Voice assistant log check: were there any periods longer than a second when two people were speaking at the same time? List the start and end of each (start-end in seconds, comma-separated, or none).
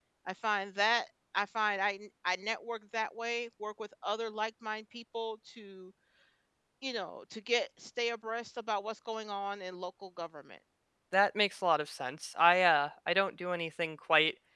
none